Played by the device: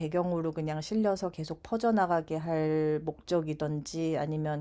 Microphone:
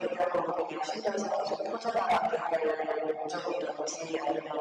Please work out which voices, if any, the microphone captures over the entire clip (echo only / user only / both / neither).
echo only